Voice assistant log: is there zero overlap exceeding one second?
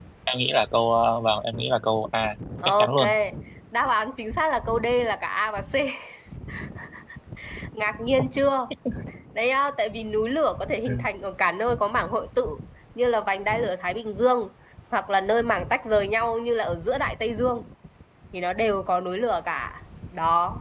Yes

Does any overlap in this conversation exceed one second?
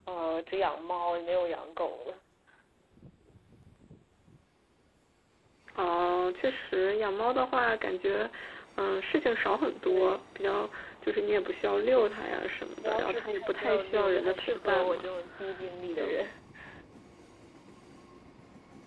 Yes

